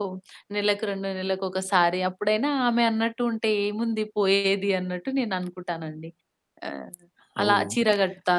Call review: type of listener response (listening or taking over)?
listening